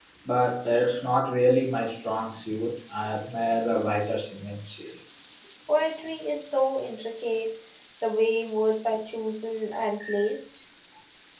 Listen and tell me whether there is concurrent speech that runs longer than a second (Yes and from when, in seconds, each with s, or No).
No